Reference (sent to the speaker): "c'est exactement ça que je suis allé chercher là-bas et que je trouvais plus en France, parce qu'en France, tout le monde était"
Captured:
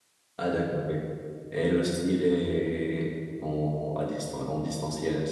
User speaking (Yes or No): Yes